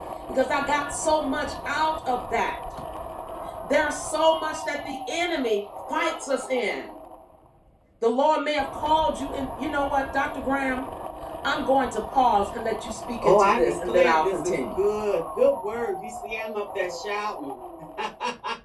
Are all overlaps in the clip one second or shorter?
No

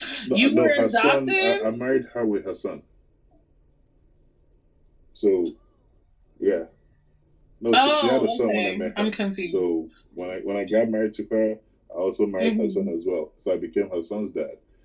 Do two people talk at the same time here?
Yes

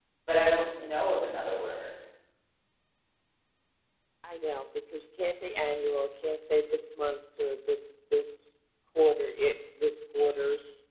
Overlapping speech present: No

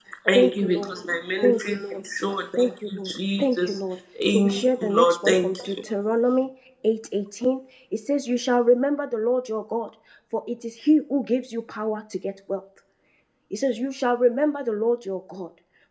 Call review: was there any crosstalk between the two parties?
Yes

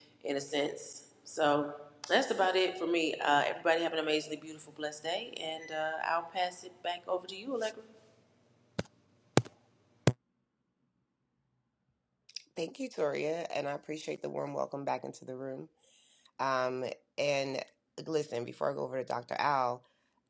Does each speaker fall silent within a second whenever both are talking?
Yes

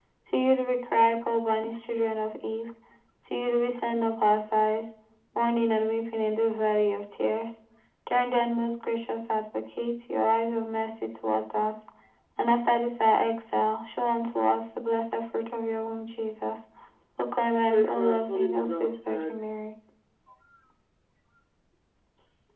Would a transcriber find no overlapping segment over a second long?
No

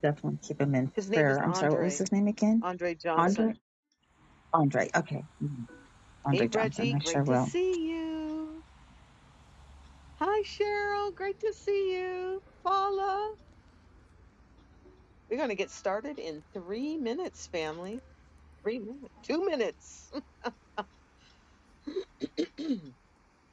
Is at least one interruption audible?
Yes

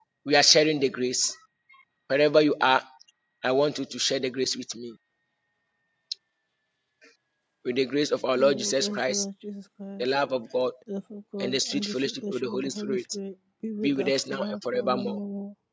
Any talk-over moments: Yes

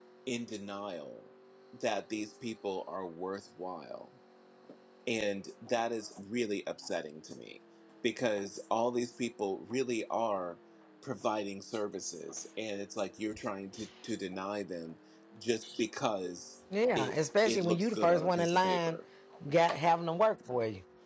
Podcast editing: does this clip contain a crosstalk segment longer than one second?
Yes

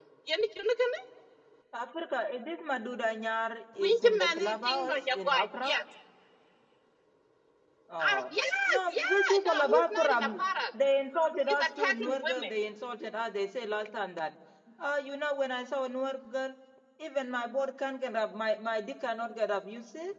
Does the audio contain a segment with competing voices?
Yes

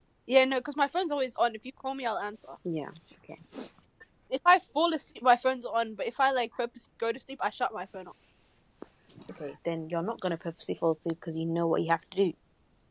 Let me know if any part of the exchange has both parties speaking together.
No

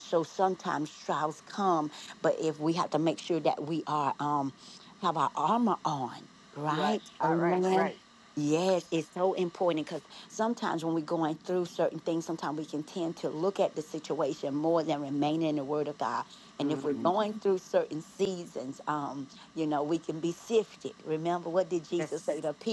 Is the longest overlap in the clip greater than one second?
Yes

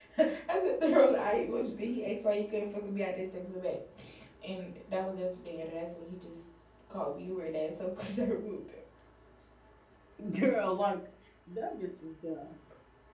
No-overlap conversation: Yes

